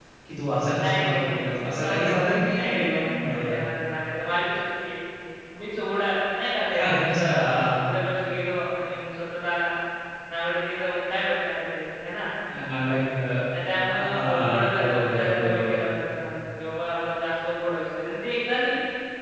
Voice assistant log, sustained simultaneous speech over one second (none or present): present